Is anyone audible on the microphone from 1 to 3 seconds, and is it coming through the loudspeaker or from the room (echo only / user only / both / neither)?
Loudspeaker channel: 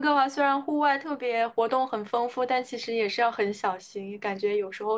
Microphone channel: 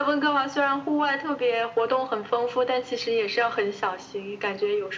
echo only